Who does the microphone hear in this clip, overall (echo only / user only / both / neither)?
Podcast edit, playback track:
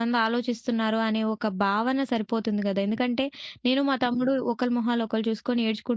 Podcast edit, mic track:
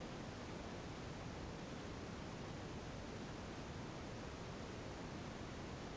neither